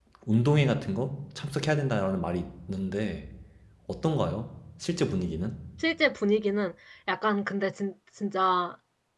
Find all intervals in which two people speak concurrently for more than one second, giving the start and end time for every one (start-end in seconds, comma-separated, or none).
none